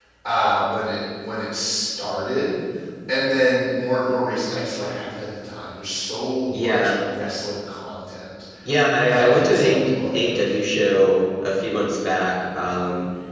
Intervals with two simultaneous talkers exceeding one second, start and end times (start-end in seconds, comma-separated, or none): 9.0-10.5